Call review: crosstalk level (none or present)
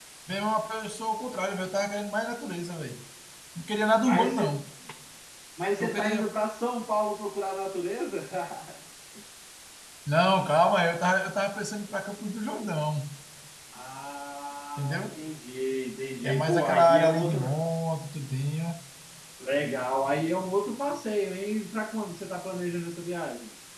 present